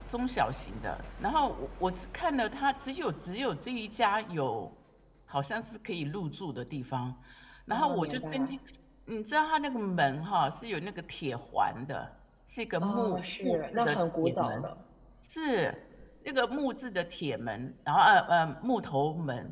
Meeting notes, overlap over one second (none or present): present